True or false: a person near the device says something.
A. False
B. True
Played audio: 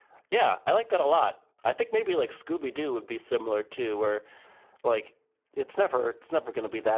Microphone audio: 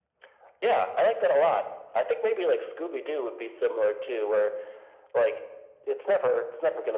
A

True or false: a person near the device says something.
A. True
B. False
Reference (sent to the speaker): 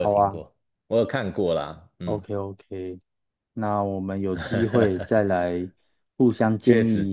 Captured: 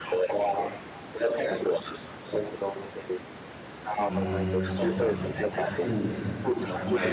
A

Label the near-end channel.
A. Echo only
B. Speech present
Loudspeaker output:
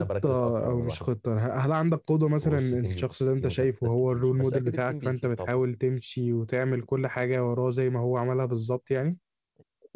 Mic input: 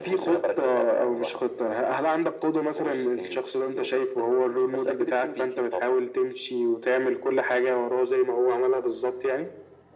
A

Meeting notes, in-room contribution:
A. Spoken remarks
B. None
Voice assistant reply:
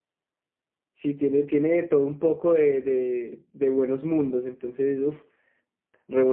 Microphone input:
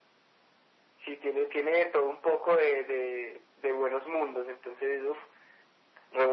B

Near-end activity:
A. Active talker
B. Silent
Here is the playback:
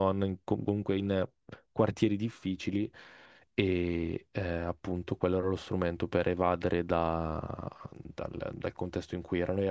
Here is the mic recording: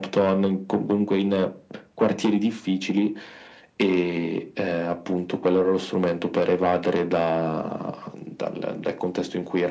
B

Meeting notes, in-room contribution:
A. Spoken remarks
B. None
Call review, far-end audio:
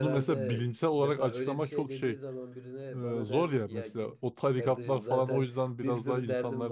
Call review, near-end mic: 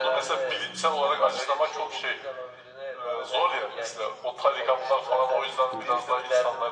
A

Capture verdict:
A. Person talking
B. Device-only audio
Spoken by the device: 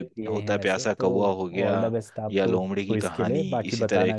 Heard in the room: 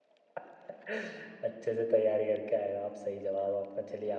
A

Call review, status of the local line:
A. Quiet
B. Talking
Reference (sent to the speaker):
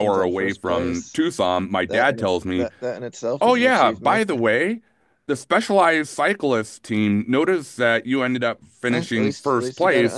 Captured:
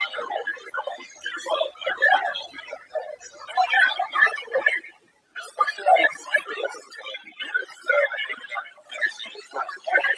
A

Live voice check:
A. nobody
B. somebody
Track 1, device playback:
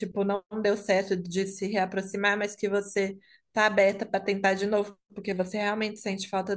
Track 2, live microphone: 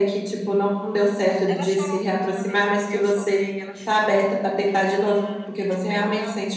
B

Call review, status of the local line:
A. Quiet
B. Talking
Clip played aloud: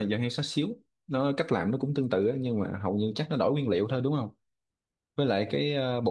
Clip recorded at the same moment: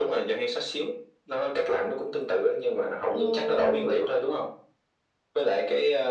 B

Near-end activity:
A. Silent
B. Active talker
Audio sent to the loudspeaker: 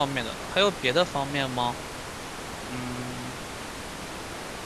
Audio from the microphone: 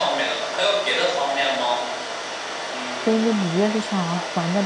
B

